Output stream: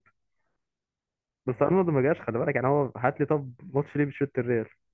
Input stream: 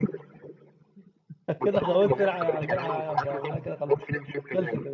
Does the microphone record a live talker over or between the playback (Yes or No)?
Yes